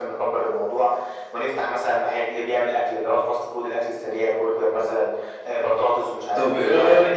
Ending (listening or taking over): taking over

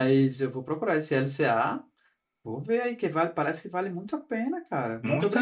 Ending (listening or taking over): taking over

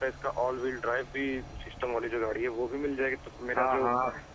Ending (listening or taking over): taking over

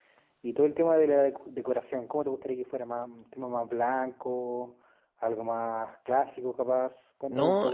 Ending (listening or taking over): taking over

